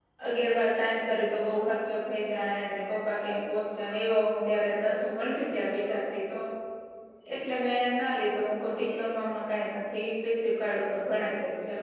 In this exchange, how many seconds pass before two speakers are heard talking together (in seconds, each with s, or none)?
none